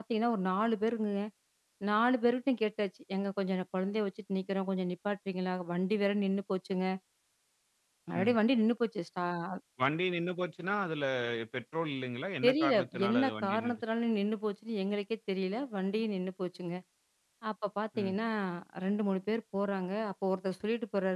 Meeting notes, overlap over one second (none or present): present